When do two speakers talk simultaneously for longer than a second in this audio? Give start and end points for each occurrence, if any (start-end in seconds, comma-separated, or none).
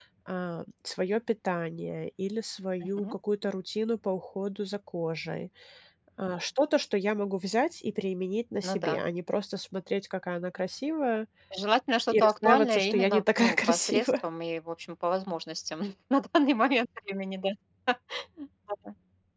12.1-14.2